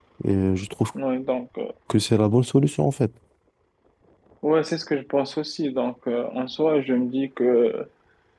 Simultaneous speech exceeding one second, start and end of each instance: none

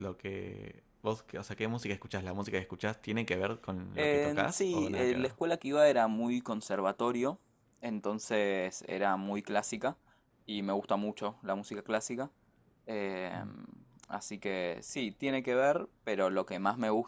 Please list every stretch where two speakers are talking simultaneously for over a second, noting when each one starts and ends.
4.0-5.3

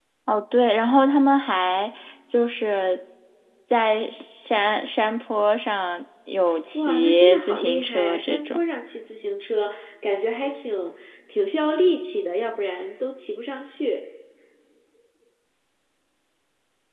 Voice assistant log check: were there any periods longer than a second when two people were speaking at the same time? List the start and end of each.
6.7-8.6

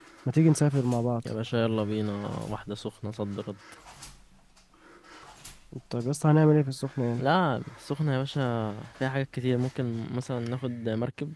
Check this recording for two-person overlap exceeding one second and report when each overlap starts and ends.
none

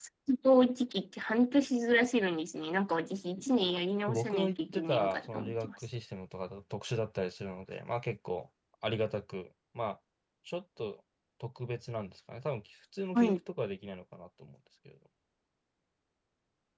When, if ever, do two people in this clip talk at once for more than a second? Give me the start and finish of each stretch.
4.1-5.8

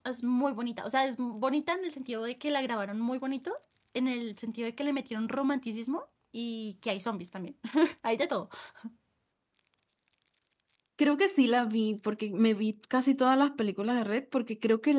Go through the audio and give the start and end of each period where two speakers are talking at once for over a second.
none

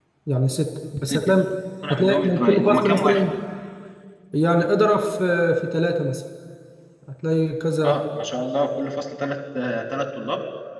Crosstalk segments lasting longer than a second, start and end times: 1.9-3.2

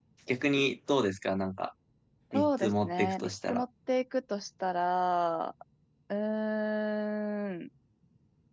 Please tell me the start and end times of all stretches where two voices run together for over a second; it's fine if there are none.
2.3-3.6

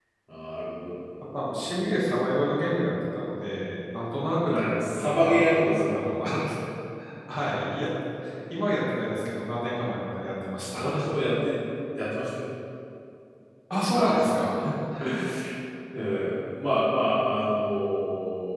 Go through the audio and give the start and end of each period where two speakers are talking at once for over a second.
4.5-6.0

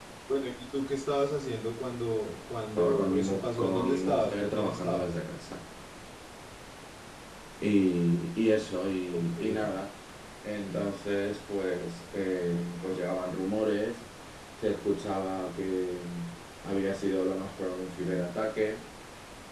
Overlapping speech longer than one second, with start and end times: 2.8-5.1

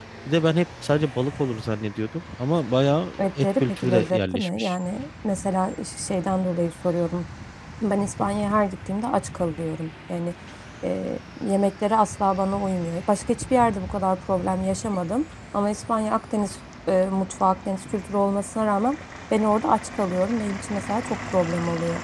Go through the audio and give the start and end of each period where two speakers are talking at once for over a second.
3.2-4.7

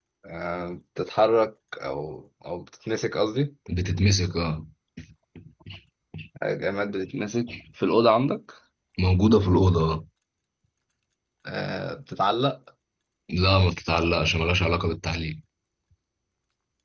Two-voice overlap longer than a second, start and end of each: none

